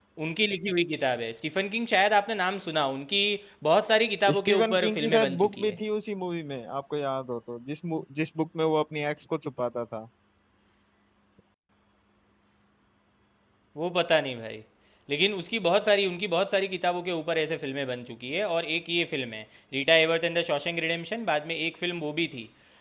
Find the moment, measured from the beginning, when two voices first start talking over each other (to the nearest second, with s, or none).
4 s